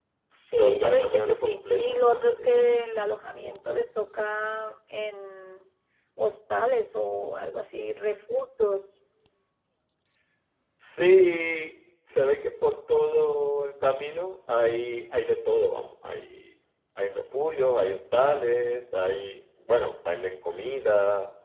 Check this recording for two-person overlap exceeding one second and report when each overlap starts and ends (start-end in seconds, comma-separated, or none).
0.6-2.7